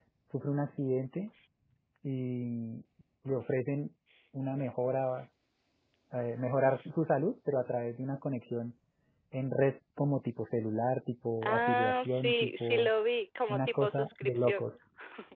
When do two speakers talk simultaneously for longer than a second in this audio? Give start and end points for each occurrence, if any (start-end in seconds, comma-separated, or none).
11.4-12.9, 13.5-14.7